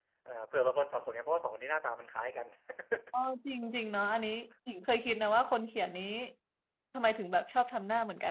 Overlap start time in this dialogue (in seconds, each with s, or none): none